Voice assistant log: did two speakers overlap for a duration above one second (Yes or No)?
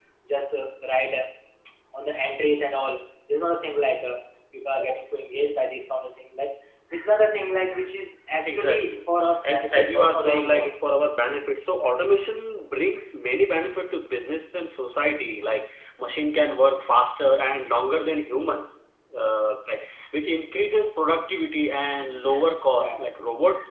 Yes